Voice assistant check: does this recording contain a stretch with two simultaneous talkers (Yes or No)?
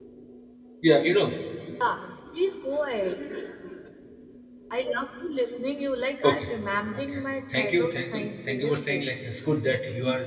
Yes